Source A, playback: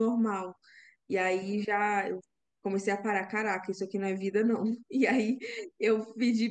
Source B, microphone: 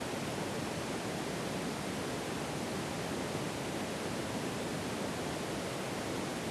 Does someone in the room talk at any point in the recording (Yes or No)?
No